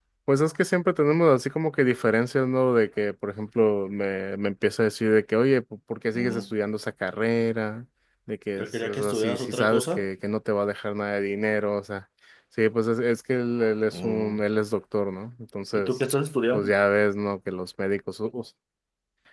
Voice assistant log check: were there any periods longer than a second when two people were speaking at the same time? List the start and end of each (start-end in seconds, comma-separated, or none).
8.6-10.1